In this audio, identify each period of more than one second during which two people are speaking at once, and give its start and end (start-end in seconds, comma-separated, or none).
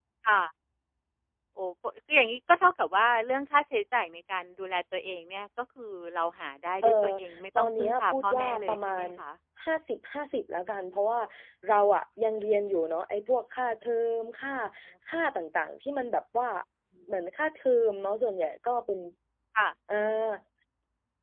7.6-9.1